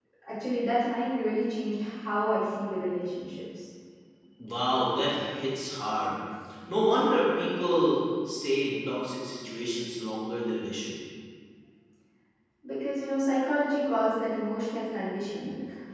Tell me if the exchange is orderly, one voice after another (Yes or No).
Yes